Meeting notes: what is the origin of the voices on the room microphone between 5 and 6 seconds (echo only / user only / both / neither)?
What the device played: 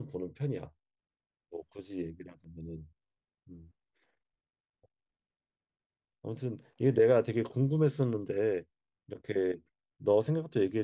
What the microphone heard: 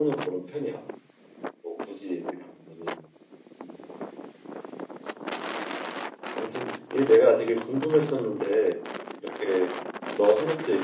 neither